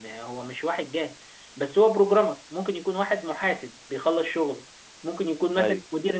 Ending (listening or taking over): listening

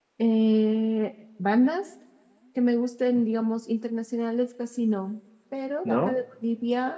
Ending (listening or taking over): listening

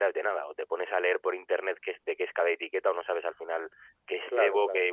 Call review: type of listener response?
listening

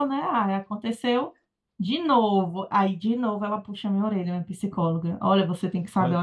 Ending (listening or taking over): listening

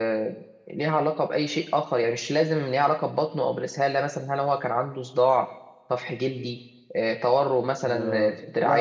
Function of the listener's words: taking over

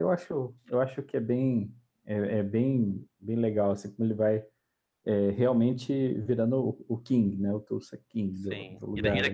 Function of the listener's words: taking over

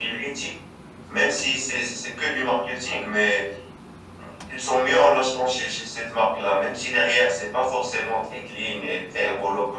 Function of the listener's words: listening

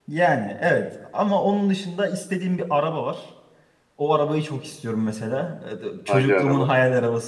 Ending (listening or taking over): listening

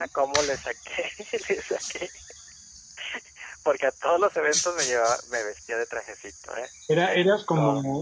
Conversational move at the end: taking over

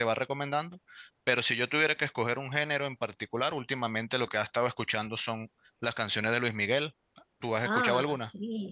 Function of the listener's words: taking over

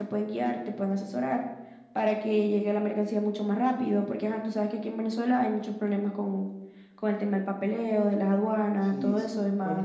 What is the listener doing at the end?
taking over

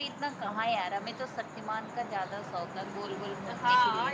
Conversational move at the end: taking over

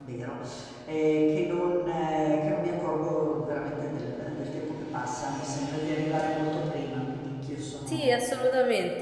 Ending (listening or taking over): taking over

